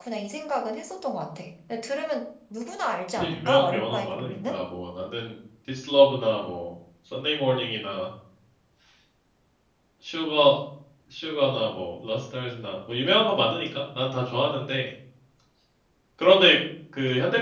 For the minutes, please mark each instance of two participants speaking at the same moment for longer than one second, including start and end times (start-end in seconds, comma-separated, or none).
3.1-4.6